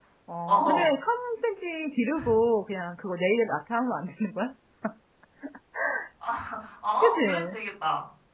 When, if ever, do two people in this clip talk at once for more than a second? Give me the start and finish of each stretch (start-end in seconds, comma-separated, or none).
none